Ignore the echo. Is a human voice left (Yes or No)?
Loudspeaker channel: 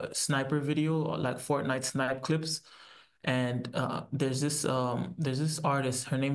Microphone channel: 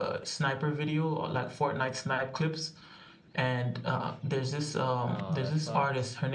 Yes